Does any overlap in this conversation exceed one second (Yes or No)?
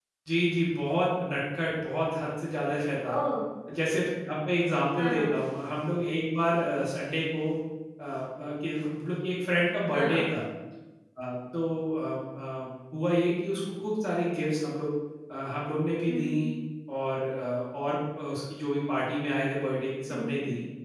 No